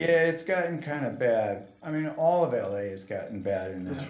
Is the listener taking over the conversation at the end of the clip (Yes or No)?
Yes